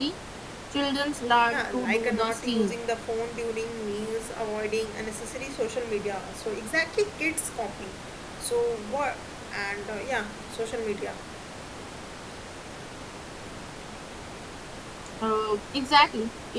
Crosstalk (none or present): present